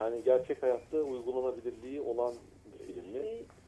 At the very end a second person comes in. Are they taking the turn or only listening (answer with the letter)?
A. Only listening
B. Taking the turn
A